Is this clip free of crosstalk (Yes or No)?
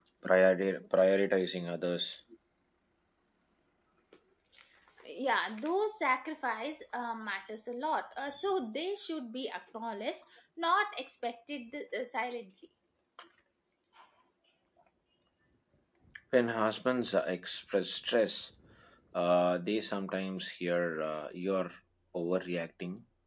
Yes